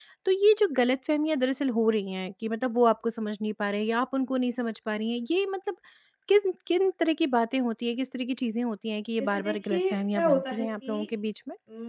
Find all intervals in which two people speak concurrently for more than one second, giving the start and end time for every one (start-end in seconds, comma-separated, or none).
9.3-11.1